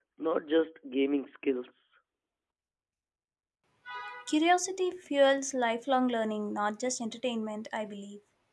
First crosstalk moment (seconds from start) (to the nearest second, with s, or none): none